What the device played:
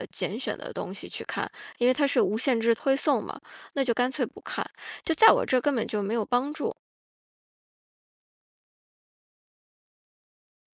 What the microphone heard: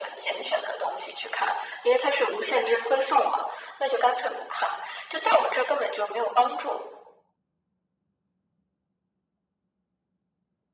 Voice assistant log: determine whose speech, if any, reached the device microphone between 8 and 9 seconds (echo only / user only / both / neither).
neither